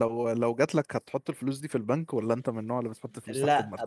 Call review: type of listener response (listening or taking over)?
taking over